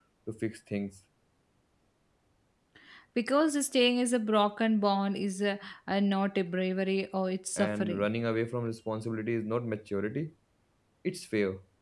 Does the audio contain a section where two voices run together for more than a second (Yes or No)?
No